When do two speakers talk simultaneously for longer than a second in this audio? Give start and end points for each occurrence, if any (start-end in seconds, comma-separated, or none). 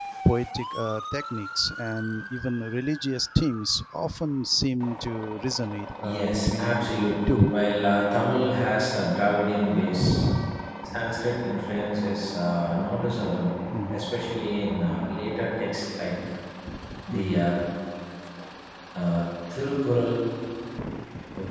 6.0-7.5